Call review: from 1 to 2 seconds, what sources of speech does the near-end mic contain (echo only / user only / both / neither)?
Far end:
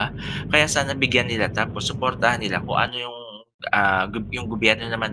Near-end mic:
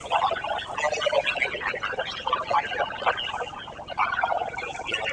echo only